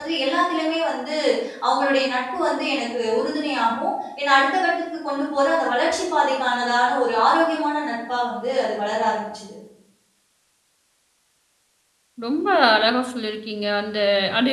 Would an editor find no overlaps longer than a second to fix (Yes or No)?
Yes